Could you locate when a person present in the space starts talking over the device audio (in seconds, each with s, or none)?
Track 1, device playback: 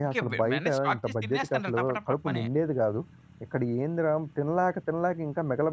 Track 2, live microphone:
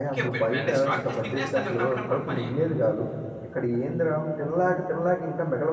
none